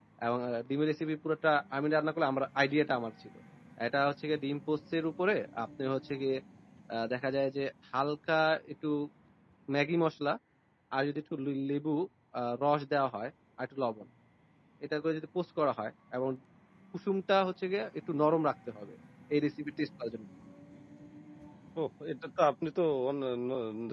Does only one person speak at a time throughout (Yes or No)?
Yes